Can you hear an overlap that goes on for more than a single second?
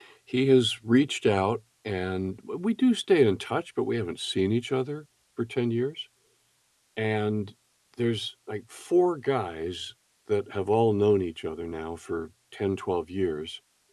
No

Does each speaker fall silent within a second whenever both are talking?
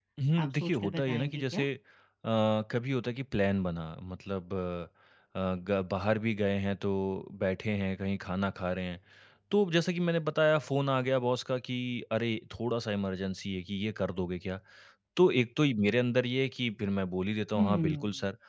No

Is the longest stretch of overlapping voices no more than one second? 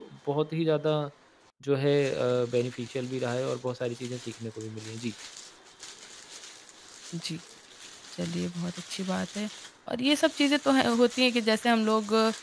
Yes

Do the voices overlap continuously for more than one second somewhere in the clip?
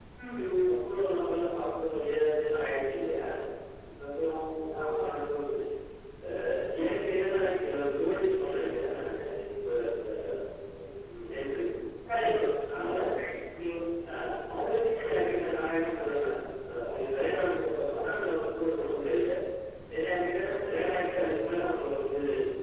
No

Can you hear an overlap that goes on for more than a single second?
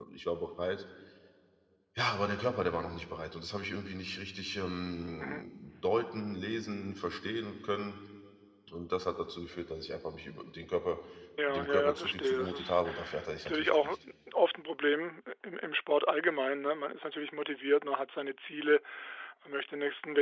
Yes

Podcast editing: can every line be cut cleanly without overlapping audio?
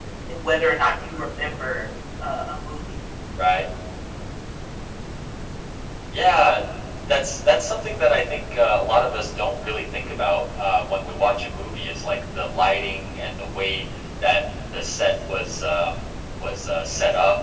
Yes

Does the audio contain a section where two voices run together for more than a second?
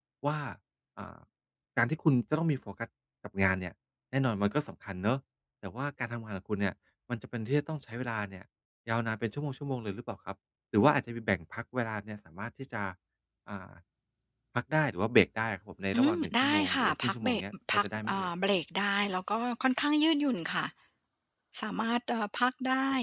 Yes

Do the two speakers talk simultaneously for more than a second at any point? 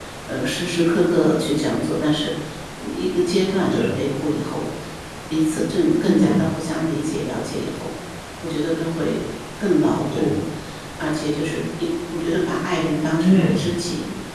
No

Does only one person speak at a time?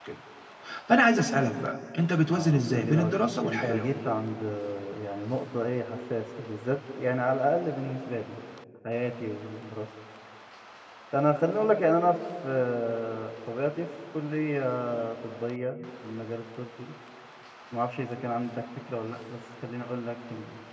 No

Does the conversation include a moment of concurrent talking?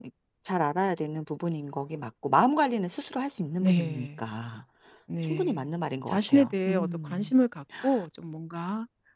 Yes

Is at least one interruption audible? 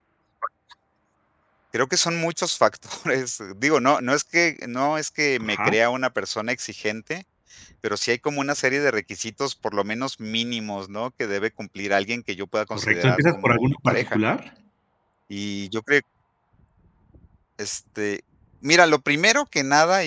Yes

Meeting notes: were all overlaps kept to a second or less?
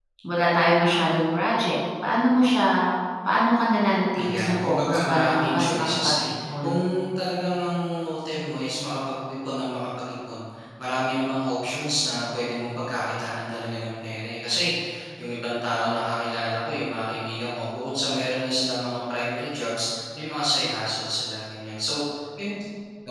No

